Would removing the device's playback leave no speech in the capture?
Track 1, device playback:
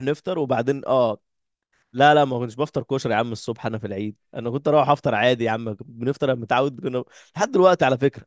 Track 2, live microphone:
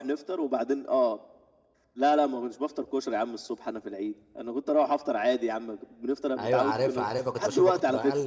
No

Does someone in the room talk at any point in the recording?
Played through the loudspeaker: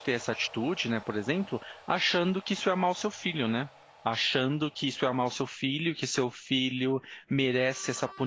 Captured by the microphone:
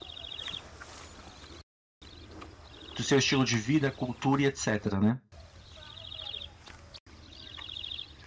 Yes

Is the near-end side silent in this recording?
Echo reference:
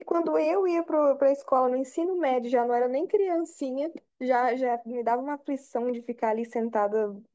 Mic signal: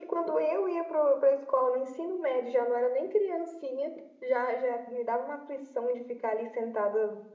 Yes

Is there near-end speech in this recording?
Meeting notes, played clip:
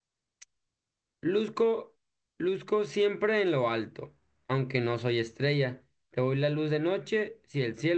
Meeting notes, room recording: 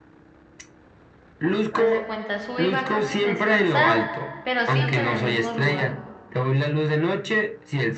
Yes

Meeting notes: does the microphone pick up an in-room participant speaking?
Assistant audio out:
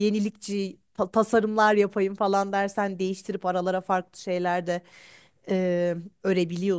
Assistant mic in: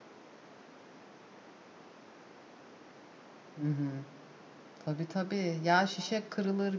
Yes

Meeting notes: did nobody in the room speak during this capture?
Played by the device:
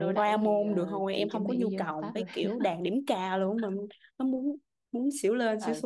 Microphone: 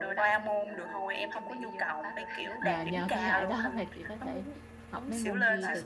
No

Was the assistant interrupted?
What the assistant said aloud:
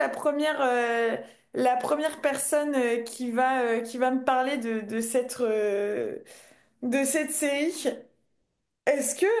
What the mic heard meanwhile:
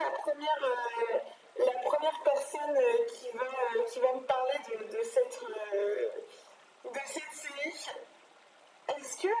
No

